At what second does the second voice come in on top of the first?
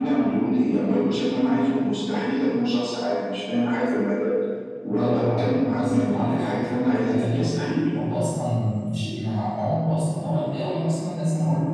5 s

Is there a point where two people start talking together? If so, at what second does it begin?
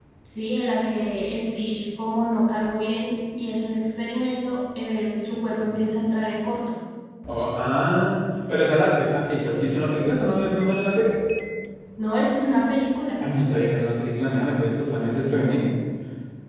none

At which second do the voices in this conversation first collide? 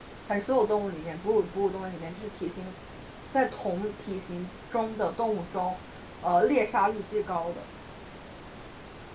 none

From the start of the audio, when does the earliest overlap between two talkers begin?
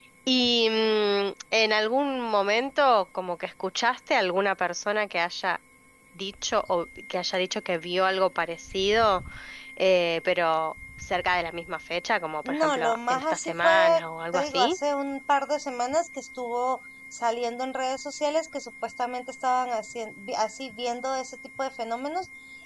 12 s

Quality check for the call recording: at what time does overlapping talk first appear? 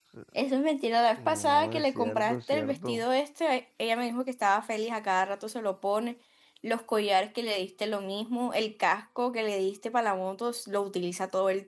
1 s

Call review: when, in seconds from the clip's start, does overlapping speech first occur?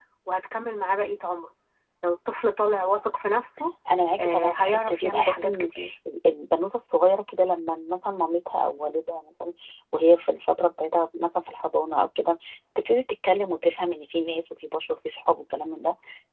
4 s

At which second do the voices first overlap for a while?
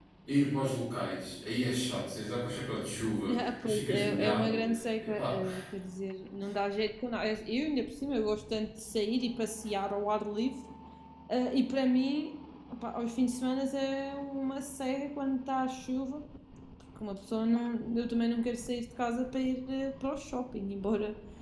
3 s

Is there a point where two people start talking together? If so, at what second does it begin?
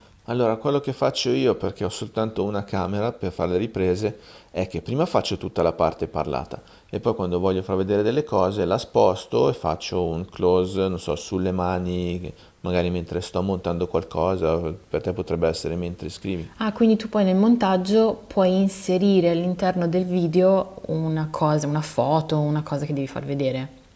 none

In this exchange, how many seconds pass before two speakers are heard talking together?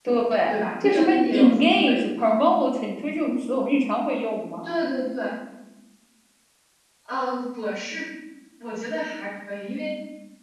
1 s

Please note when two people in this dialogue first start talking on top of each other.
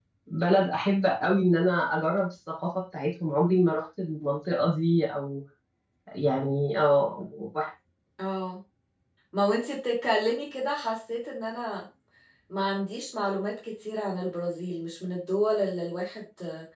none

